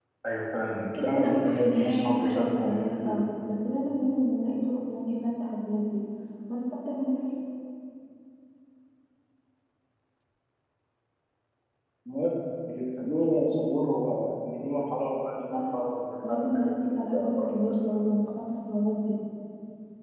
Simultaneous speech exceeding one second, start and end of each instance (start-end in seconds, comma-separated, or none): 0.9-3.2, 16.3-17.7